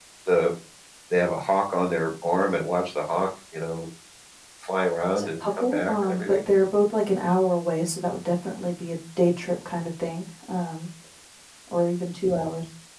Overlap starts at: 5 s

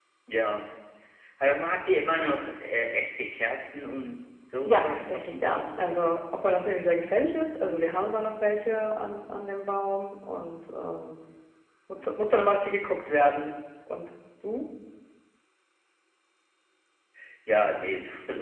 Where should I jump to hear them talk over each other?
5 s

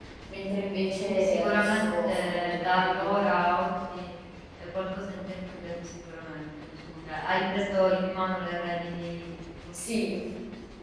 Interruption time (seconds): 1 s

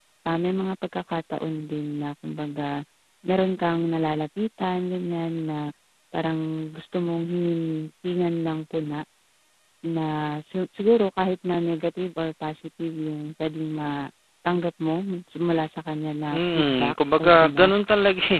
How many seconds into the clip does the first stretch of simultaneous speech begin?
16 s

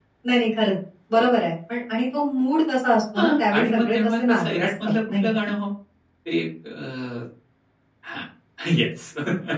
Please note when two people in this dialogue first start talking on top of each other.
3 s

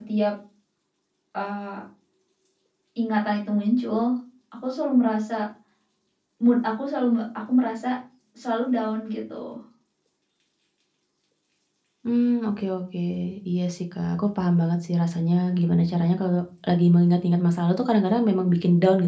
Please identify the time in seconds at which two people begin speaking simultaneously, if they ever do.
none

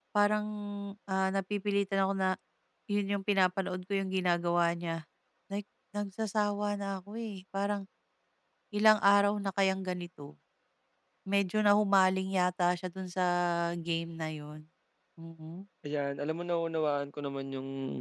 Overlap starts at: none

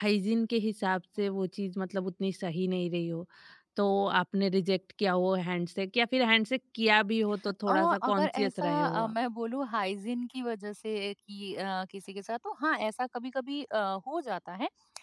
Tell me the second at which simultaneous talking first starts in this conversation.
8 s

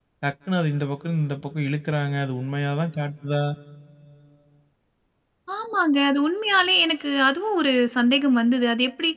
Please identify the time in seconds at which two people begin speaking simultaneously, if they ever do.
none

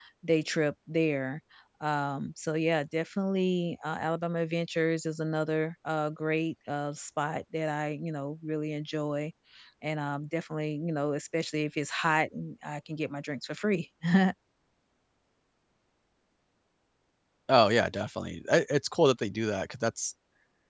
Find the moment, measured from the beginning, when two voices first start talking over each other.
none

